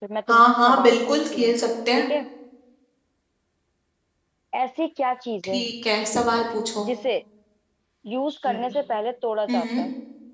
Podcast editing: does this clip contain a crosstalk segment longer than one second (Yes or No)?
Yes